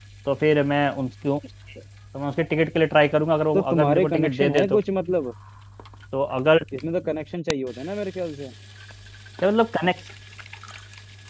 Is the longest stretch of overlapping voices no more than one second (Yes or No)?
No